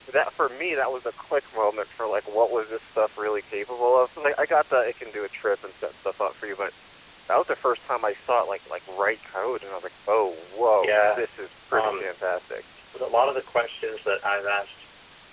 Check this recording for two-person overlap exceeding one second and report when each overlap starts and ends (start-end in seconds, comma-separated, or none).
none